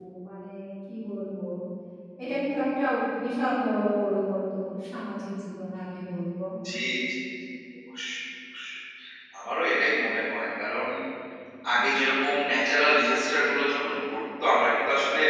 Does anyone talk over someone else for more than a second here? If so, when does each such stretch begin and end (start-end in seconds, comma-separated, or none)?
none